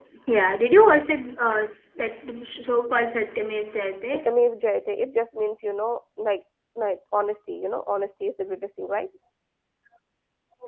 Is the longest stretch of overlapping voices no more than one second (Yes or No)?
Yes